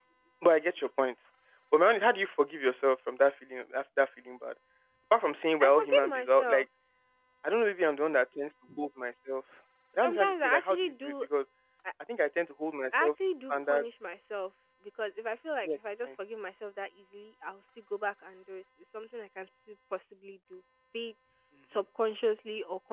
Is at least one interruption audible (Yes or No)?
Yes